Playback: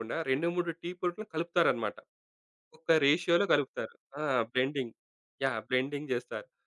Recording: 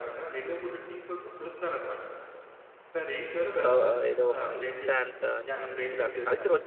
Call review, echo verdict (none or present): present